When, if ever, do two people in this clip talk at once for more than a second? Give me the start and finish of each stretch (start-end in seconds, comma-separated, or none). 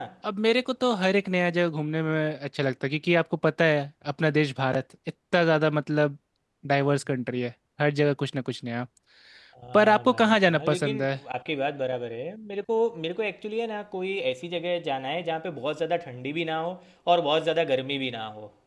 9.7-11.1